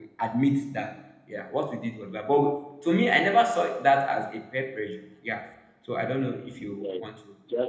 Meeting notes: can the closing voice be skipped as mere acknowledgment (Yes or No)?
No